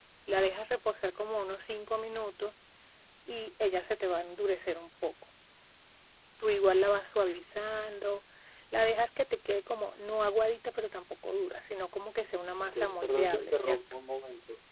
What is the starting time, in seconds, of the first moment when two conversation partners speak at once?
12.6 s

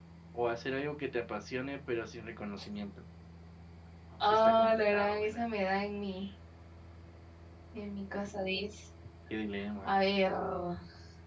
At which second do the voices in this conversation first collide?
4.3 s

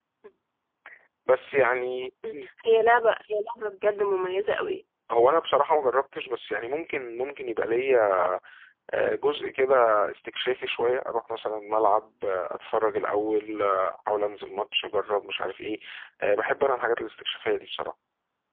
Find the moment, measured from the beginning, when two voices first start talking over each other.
none

